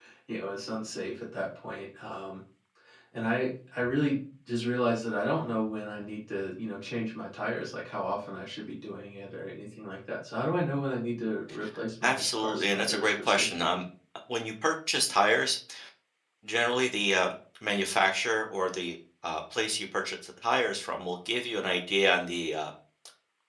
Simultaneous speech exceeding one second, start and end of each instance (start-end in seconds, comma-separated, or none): 12.0-13.7